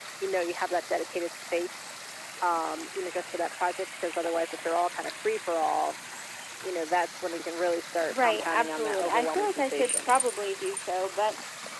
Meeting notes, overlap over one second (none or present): present